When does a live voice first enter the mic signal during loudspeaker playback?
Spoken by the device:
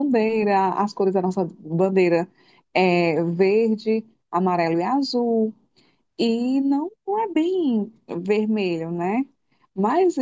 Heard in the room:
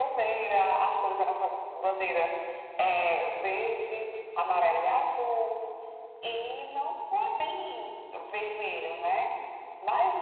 none

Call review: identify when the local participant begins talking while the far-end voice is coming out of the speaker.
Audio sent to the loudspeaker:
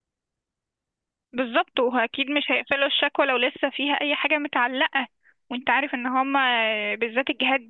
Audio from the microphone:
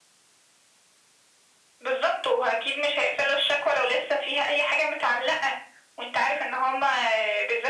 none

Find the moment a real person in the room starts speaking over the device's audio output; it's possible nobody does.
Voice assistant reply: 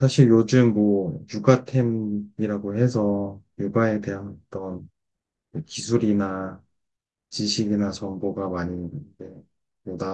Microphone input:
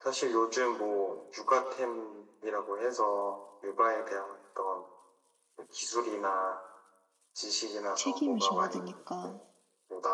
7.9 s

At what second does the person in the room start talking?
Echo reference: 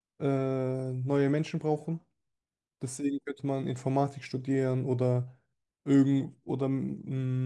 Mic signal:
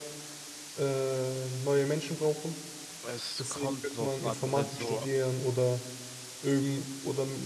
3.0 s

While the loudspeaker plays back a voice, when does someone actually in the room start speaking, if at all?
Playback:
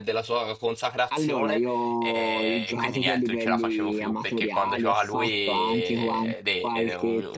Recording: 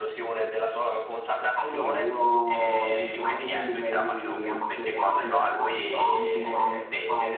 none

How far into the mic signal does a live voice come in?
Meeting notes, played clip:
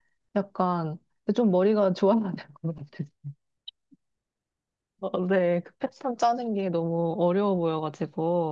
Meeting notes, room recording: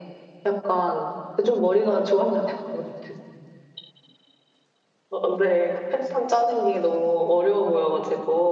none

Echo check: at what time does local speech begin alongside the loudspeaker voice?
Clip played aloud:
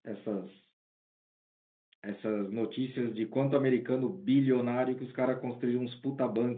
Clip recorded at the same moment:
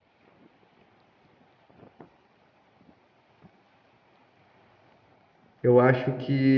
5.6 s

